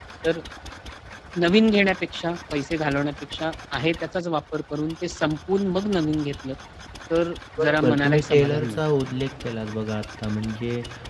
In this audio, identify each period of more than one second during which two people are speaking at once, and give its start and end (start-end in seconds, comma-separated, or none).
7.6-8.8